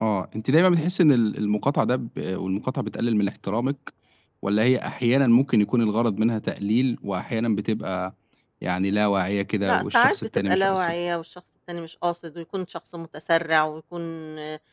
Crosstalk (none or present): present